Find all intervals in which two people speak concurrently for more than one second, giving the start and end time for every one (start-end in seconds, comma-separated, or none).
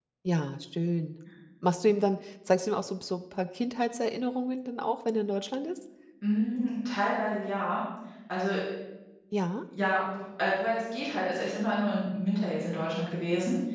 none